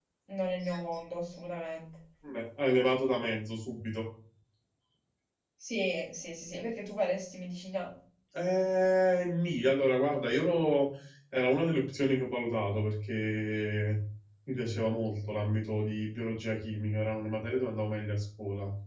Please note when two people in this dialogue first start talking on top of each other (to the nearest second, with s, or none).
none